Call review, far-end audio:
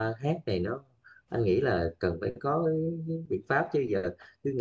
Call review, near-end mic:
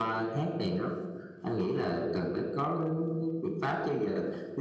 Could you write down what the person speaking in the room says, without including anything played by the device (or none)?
none